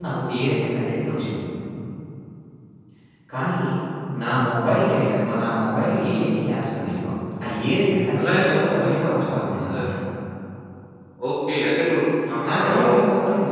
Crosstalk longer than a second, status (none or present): present